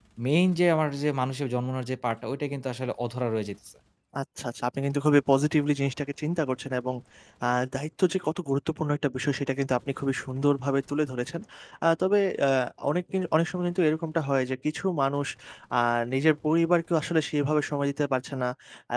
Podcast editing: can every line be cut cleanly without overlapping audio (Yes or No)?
Yes